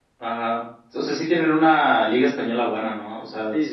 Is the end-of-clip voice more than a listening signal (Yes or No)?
Yes